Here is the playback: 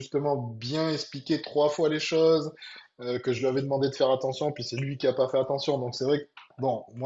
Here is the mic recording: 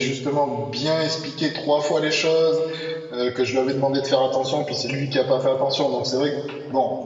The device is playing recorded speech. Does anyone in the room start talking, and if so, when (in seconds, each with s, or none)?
none